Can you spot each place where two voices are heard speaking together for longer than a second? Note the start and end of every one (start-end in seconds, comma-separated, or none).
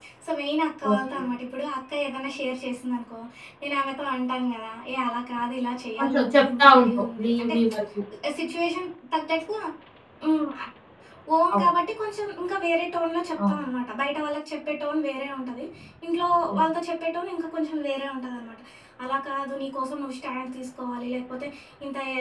6.0-7.5